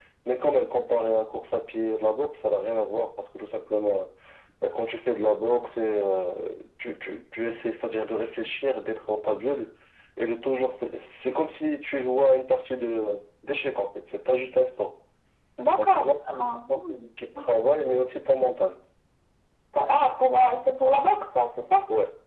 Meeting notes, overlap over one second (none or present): present